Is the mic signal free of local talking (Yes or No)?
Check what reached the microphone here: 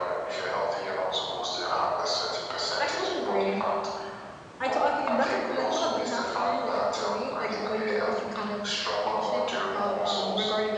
No